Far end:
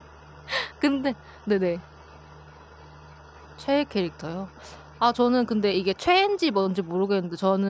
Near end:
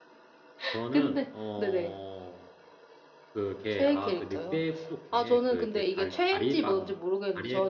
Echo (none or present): present